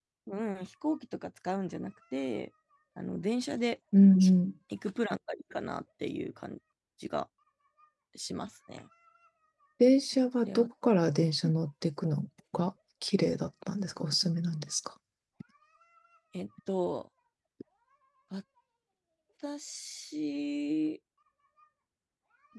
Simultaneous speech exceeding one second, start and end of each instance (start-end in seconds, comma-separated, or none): none